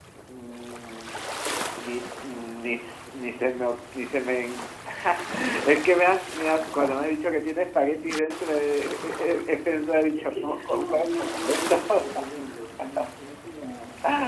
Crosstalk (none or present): present